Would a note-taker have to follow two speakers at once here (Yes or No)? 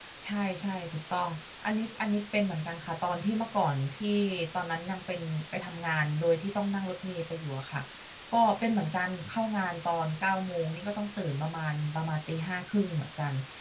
No